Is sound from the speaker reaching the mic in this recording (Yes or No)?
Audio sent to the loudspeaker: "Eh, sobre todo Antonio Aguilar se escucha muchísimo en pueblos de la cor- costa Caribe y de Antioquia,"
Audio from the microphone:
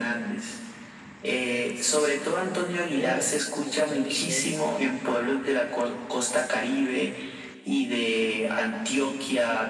Yes